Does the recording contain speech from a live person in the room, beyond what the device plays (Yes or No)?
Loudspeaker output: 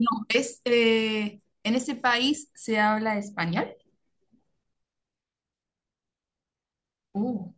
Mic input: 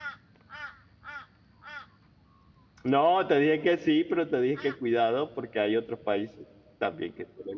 Yes